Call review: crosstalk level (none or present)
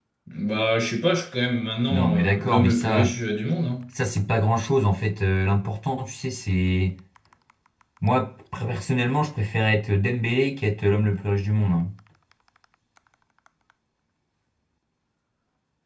present